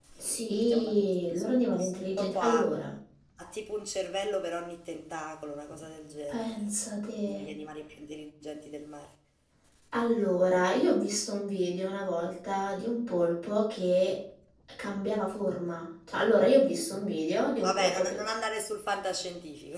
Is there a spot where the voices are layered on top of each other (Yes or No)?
Yes